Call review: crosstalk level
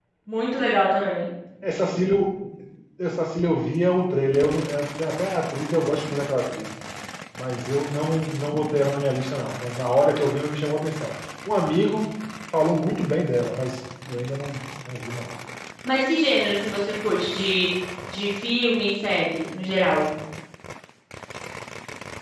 none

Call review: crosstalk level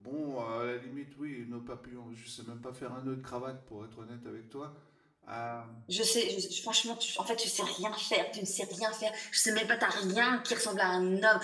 none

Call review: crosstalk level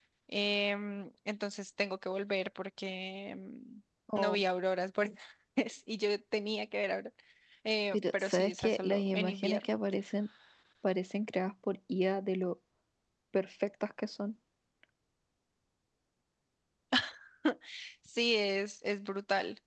present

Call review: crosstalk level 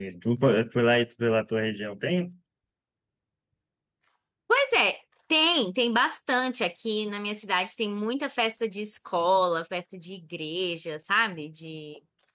none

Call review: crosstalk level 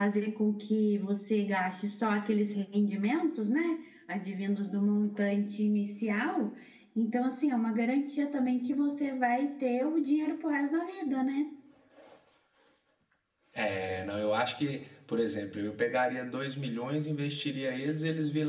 none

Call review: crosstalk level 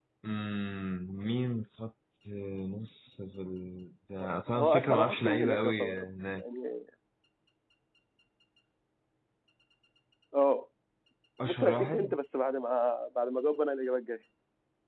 present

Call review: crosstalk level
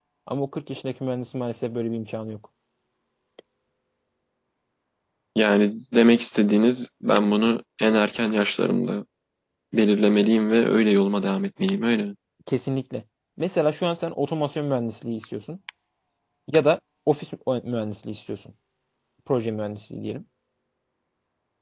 none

